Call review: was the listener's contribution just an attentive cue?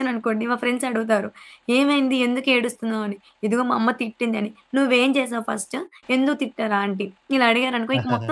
No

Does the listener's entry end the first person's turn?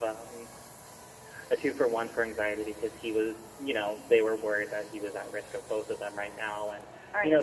No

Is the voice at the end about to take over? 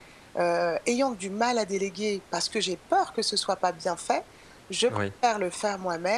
No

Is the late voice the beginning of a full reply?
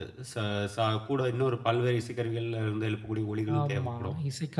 Yes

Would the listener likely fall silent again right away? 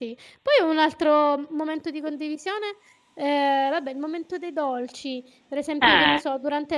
Yes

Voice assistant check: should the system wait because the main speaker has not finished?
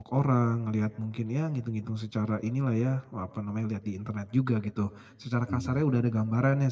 Yes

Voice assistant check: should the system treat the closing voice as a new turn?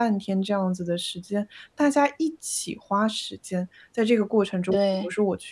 No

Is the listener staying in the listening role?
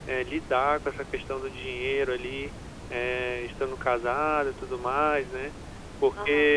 Yes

